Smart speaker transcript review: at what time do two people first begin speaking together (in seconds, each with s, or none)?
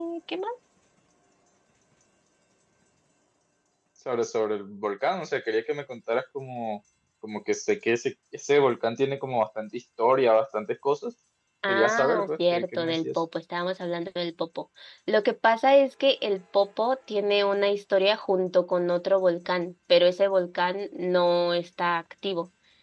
11.7 s